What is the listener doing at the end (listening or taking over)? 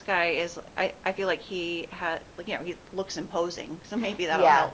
taking over